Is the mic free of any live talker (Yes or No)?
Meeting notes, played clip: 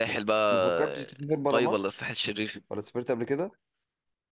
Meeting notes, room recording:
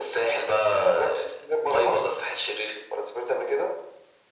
Yes